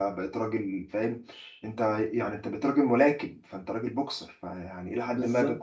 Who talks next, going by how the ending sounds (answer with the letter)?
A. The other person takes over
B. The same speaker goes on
B